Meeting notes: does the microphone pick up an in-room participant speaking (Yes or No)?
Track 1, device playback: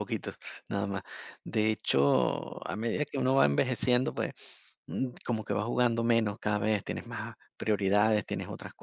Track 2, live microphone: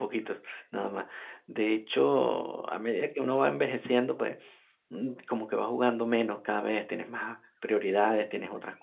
No